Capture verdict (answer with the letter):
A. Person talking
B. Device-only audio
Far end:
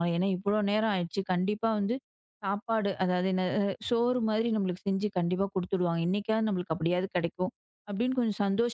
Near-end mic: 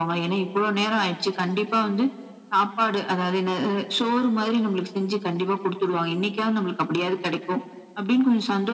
B